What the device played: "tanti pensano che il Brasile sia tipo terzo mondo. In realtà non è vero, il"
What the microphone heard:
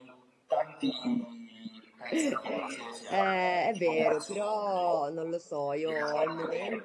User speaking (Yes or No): Yes